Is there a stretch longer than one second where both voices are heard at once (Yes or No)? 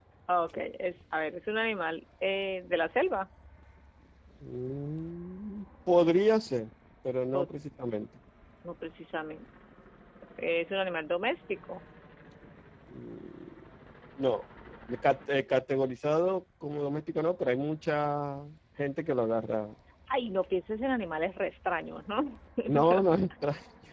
No